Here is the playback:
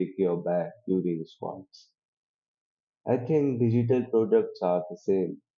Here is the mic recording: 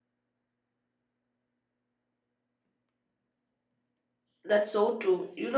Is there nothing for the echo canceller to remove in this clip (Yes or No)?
Yes